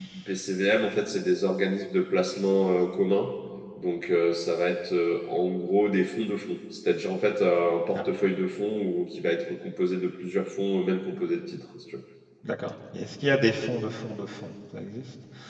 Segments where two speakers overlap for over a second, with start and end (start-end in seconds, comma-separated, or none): none